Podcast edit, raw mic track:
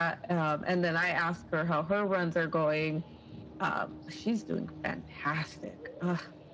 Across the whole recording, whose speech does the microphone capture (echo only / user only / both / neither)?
echo only